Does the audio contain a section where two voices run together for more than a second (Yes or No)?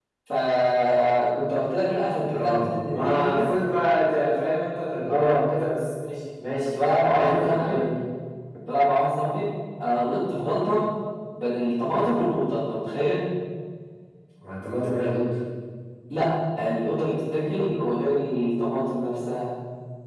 Yes